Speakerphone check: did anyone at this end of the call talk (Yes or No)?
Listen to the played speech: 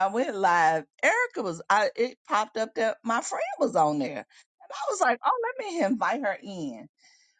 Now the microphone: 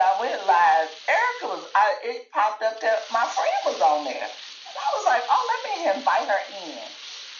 No